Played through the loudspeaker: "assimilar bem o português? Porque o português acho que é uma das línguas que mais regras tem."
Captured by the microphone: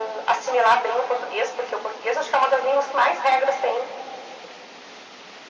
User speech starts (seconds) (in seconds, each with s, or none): none